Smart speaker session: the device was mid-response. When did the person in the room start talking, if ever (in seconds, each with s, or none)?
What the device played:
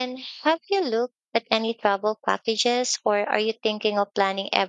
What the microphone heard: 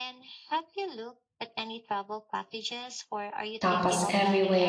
3.6 s